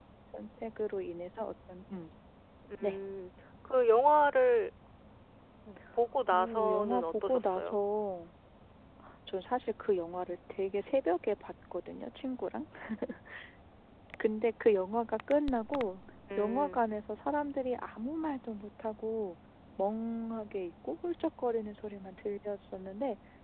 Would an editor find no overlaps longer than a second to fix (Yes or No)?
No